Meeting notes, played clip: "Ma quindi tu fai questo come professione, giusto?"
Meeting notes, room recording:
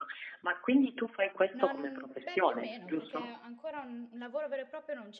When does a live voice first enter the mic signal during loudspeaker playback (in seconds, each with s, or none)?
1.5 s